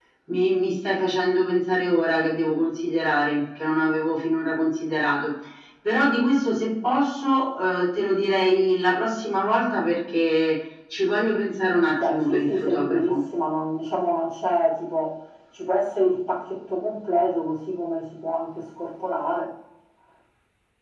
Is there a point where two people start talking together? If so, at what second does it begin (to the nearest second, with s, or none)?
12 s